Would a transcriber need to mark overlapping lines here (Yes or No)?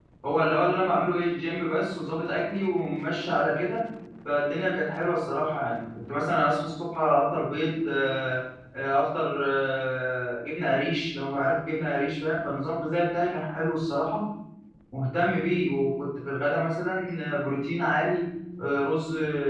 No